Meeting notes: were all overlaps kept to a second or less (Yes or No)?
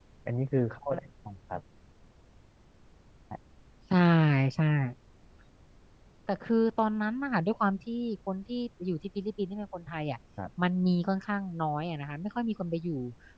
Yes